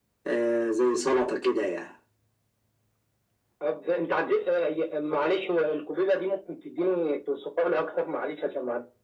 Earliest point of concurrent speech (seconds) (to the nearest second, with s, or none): none